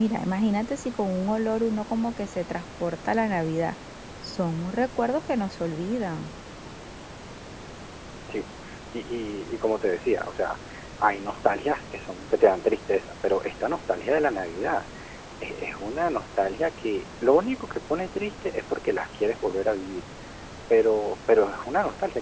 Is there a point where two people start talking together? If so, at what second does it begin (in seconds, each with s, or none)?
none